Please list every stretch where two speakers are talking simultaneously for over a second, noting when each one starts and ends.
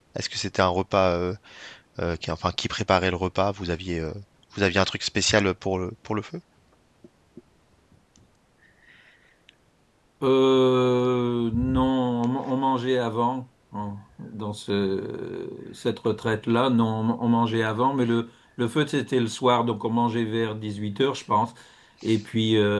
none

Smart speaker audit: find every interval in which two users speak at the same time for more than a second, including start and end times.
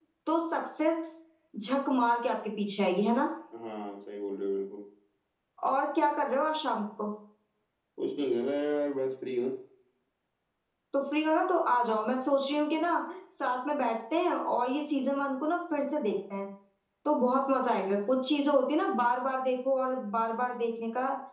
none

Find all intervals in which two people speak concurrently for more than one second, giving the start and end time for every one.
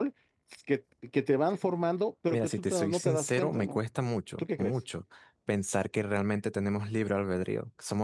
2.3-3.8

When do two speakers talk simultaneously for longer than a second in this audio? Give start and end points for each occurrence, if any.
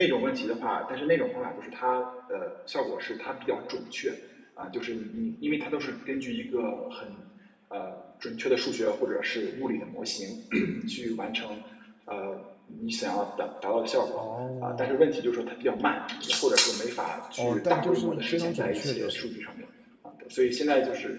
17.4-19.3

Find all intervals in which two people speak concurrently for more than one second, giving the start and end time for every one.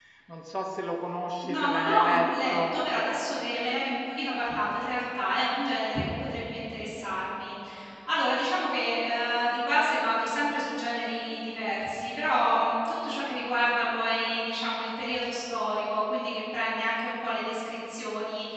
1.4-2.7

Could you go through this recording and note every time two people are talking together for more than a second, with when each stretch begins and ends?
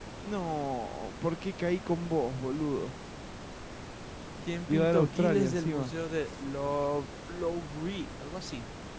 4.7-5.9

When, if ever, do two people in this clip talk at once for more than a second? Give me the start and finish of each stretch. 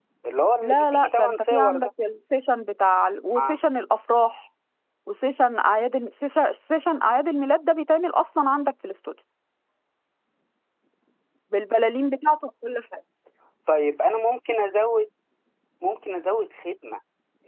0.6-1.9

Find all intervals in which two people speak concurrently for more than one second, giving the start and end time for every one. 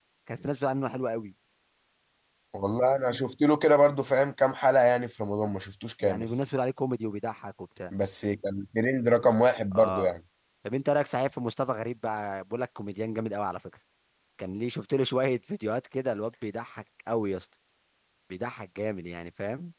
none

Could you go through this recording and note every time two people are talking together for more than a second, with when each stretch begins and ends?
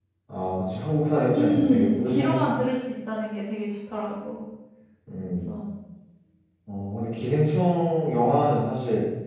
1.3-2.5

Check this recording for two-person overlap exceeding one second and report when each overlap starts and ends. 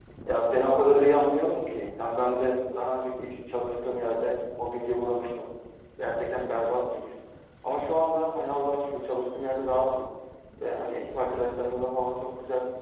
none

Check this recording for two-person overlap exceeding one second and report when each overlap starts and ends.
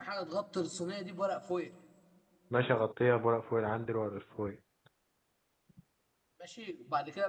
none

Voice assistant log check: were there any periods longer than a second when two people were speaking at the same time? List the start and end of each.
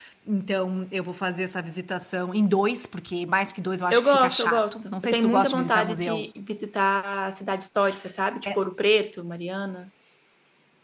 3.9-6.2

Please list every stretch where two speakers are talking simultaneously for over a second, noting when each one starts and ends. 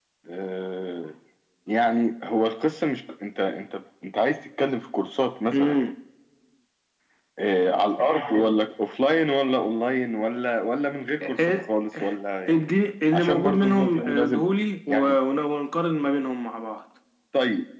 13.1-14.4

